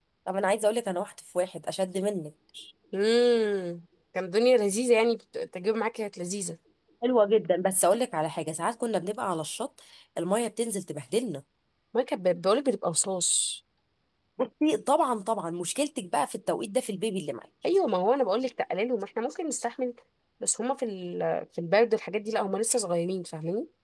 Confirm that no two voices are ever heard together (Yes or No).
Yes